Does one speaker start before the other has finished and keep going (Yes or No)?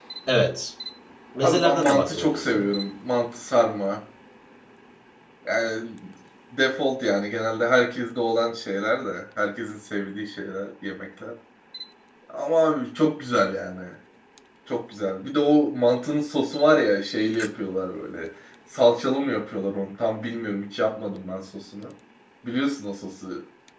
Yes